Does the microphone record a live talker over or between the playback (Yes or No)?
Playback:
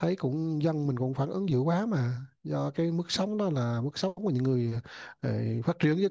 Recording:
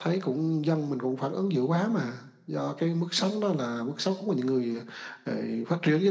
No